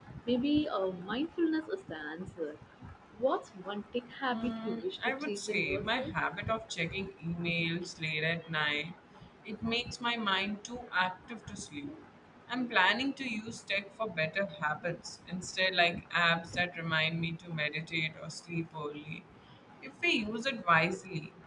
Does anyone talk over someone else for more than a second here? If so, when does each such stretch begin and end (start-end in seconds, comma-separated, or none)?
4.3-6.1